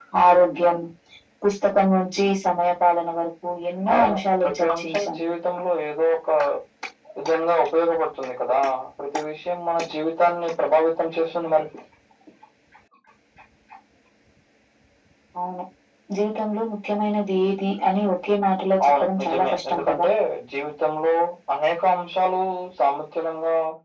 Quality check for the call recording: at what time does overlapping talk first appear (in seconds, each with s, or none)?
3.9 s